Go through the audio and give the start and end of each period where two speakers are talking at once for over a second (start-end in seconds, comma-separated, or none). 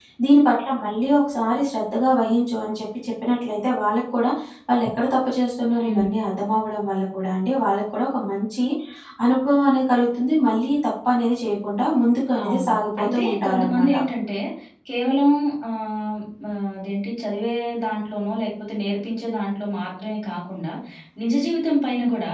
12.4-13.9